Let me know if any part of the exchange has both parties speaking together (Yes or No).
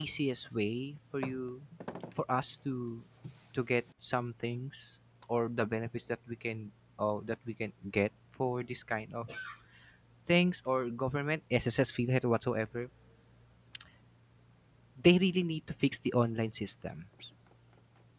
No